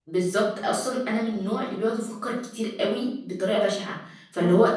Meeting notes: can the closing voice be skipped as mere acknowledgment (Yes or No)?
Yes